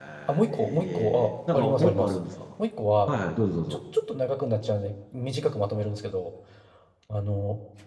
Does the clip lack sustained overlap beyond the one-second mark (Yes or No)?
No